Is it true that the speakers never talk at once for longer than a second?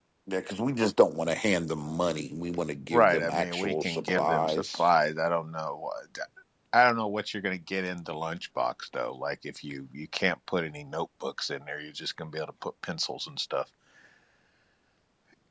No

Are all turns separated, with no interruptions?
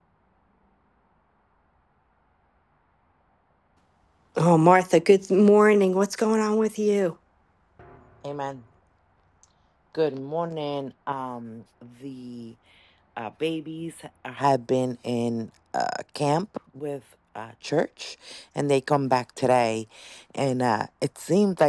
Yes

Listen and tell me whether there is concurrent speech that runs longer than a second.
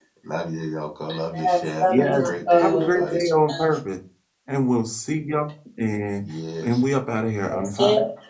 Yes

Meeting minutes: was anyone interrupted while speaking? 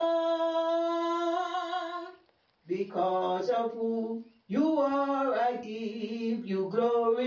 No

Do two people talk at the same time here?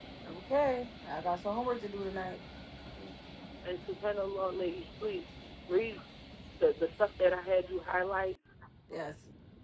No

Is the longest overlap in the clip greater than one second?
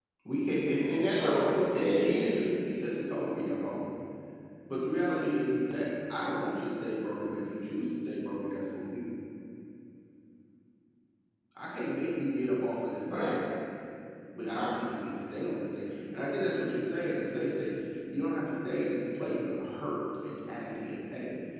Yes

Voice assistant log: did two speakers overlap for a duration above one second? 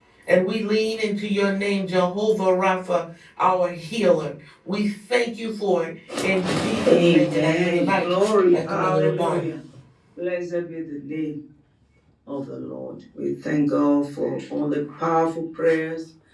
Yes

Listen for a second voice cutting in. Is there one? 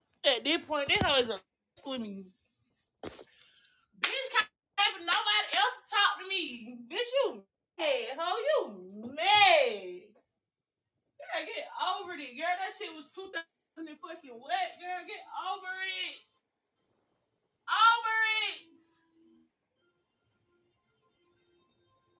No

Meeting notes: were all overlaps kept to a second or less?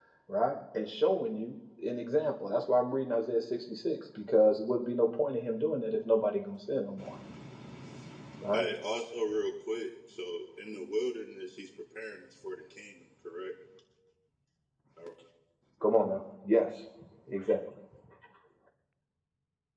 Yes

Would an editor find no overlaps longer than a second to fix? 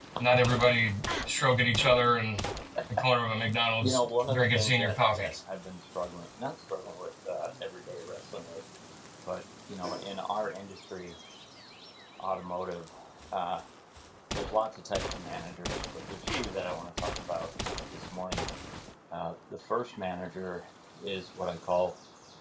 No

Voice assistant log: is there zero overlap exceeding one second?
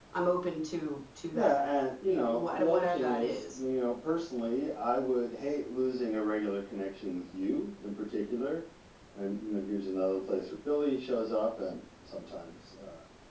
No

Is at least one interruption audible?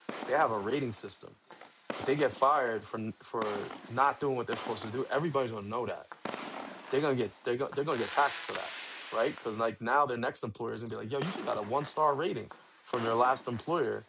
No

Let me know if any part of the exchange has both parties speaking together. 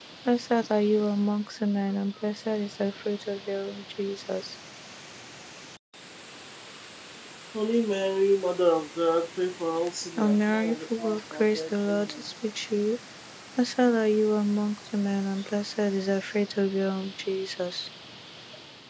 Yes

